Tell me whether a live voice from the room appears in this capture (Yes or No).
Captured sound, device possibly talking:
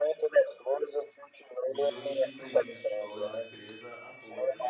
Yes